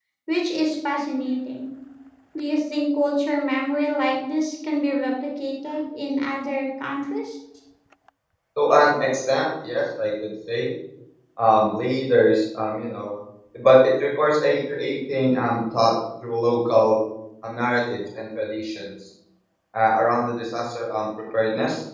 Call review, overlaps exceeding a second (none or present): none